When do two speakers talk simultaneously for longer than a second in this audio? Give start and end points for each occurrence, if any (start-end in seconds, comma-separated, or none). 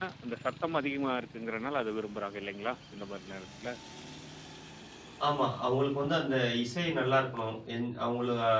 none